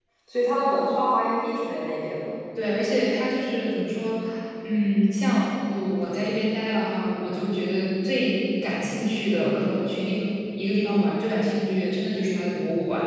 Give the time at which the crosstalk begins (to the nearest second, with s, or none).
none